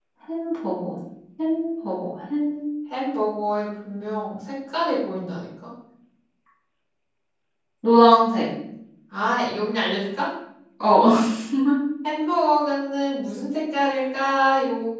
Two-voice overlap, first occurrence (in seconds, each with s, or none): none